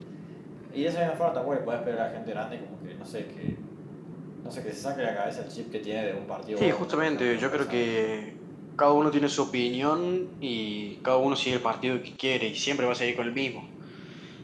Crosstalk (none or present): present